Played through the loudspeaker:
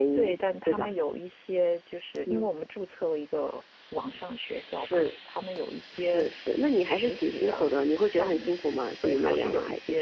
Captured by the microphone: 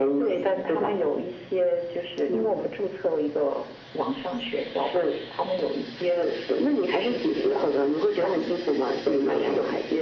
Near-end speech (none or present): none